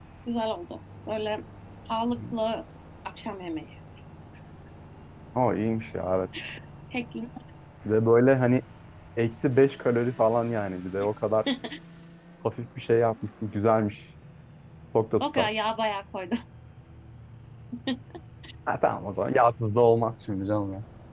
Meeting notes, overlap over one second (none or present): none